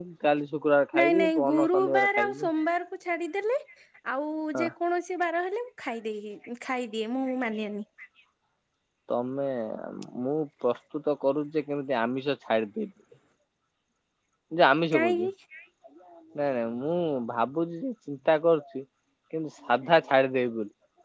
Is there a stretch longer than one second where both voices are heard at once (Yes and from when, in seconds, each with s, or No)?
Yes, from 1.0 s